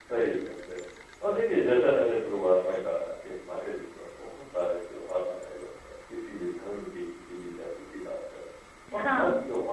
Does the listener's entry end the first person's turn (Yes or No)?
No